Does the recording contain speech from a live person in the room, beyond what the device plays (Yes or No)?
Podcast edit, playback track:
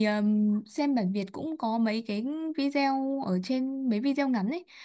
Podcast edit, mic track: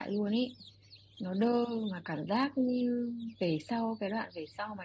Yes